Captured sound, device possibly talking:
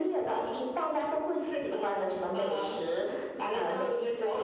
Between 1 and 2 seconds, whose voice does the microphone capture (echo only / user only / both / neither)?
echo only